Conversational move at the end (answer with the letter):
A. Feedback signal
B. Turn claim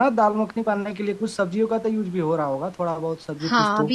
B